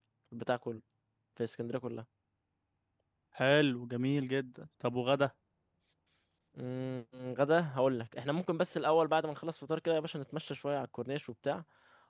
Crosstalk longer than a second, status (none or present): none